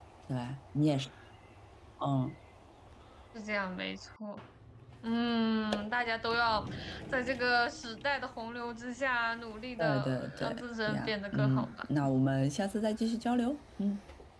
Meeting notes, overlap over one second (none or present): present